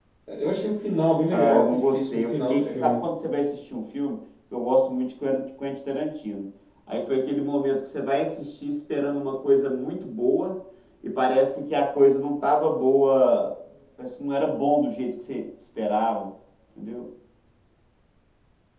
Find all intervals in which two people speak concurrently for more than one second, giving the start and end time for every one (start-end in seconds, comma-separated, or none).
1.3-3.1